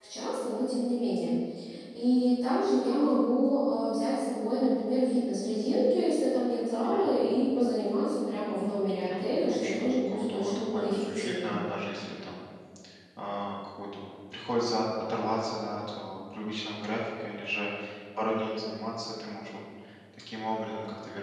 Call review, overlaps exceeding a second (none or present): present